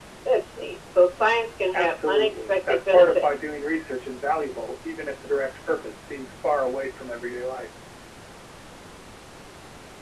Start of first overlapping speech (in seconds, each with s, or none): 1.7 s